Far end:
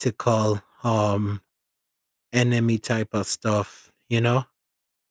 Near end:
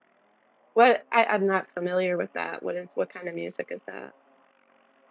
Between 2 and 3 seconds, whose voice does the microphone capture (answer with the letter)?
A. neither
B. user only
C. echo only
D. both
B